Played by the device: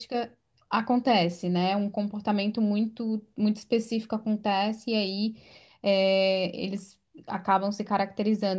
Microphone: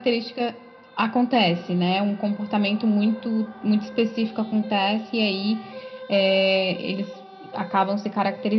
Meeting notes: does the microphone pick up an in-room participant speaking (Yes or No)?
No